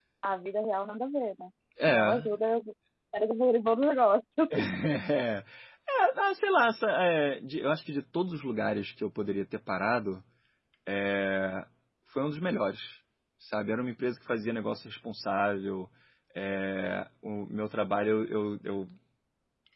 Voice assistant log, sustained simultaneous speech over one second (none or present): none